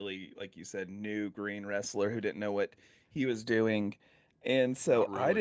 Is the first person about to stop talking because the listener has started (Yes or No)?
No